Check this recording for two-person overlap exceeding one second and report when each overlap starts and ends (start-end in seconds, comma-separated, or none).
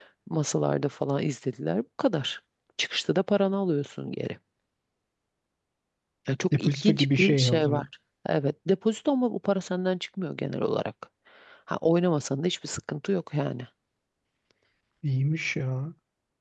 6.6-7.8